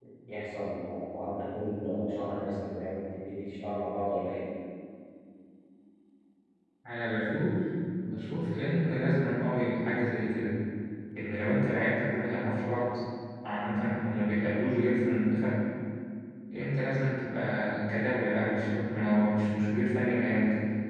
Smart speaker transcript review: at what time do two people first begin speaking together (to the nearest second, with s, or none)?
none